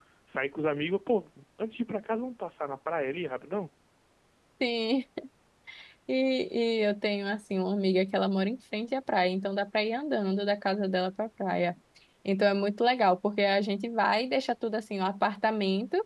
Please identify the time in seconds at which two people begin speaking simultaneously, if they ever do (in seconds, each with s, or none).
none